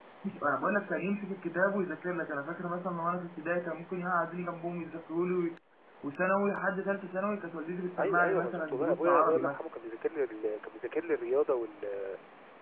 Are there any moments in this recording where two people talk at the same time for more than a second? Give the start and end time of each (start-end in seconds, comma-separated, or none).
8.0-9.6